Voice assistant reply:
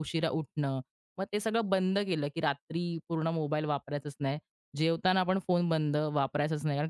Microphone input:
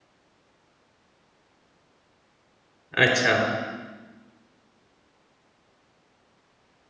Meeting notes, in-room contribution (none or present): present